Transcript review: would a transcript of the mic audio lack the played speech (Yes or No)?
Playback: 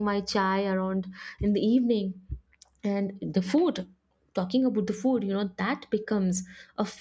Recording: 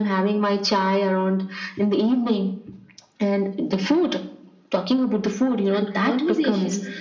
No